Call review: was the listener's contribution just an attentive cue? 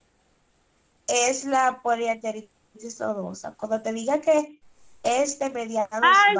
No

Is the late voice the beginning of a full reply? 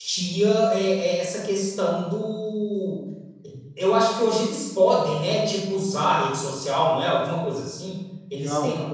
Yes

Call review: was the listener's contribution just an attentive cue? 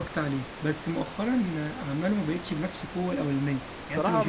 Yes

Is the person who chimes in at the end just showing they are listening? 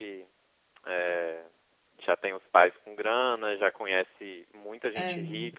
Yes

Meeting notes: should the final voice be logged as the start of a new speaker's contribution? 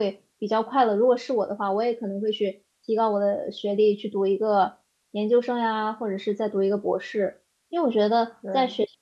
No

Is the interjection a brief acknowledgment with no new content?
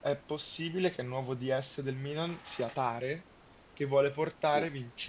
Yes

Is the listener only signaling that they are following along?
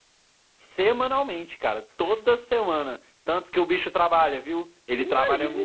No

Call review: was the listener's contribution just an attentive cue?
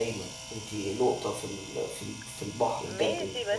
No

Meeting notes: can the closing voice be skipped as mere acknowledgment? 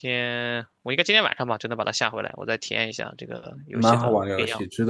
No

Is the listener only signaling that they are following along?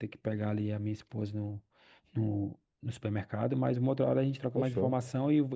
Yes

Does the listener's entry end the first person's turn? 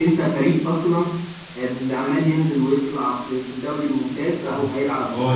Yes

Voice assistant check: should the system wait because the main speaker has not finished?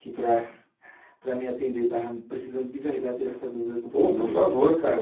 No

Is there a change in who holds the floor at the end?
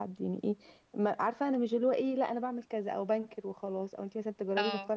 No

